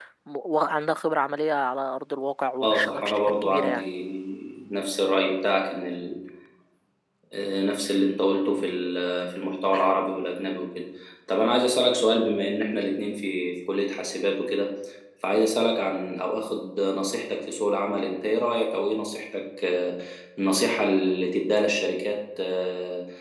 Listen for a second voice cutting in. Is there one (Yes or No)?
Yes